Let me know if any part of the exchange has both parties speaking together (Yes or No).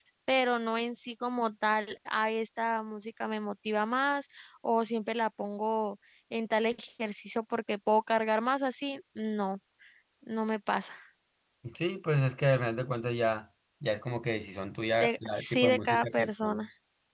Yes